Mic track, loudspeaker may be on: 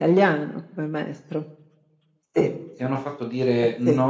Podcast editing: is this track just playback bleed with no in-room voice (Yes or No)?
No